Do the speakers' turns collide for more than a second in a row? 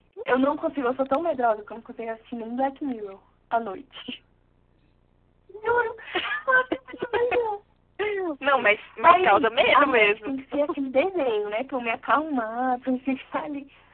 Yes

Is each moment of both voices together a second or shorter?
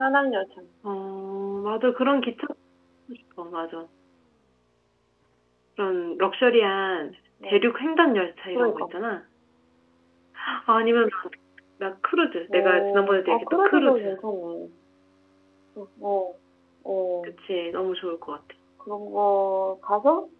No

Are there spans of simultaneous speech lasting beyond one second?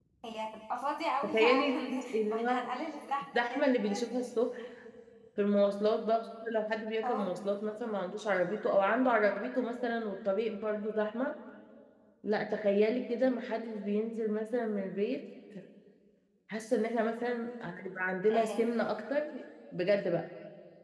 Yes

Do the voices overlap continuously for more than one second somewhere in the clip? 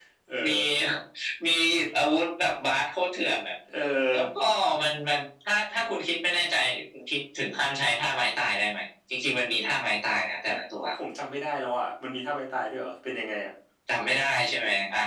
No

